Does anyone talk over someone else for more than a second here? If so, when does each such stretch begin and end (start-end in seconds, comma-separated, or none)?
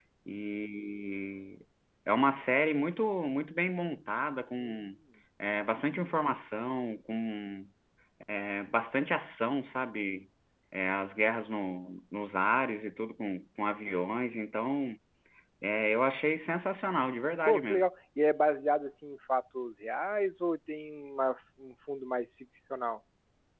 none